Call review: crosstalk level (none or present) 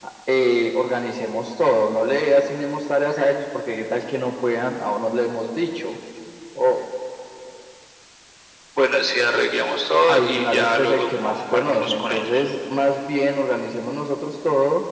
present